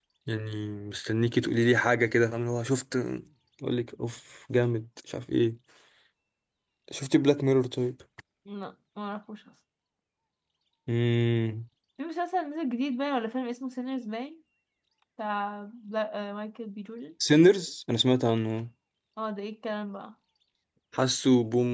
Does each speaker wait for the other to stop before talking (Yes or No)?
Yes